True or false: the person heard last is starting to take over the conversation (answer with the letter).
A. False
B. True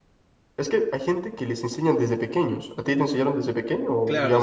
B